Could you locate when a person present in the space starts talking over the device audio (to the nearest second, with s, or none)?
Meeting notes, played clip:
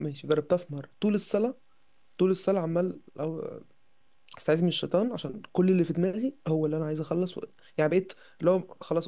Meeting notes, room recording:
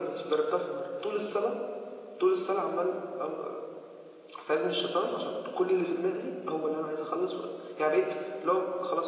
none